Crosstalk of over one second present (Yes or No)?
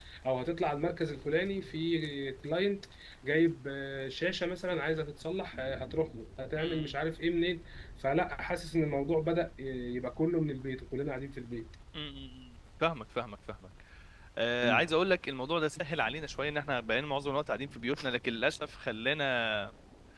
No